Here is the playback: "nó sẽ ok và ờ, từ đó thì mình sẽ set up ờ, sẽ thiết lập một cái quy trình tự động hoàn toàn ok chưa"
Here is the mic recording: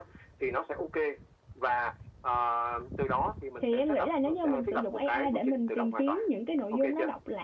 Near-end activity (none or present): present